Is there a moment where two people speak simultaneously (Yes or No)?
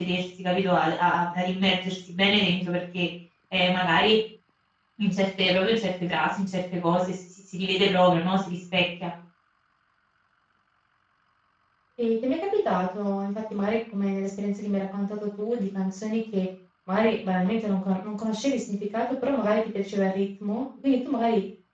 No